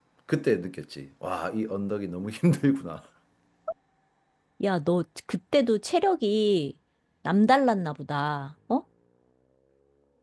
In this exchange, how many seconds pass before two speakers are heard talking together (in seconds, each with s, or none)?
none